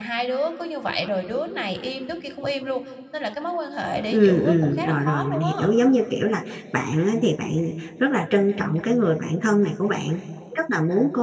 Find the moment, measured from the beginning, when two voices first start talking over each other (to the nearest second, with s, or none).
4 s